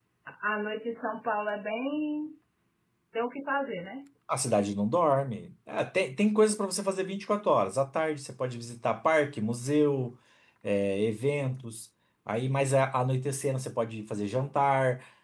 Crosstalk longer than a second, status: none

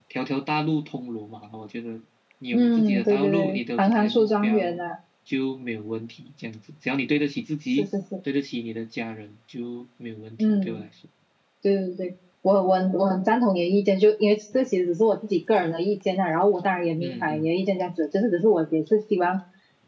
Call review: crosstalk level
present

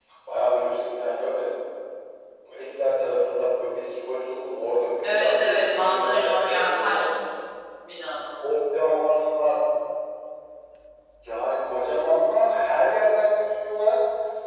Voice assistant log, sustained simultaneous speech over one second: present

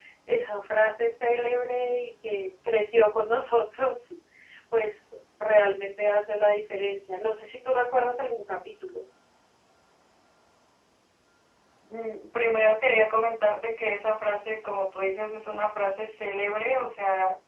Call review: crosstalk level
none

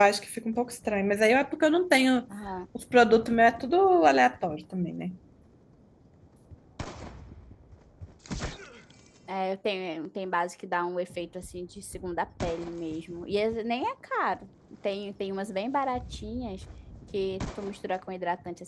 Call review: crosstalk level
none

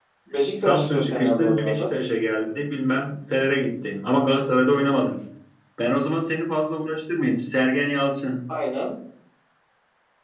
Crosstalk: present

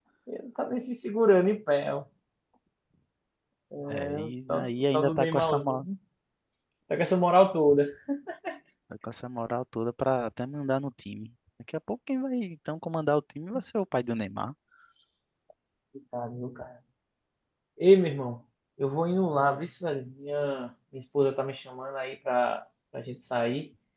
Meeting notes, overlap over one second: present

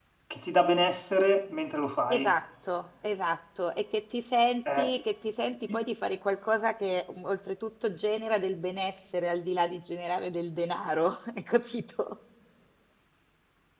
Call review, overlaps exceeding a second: none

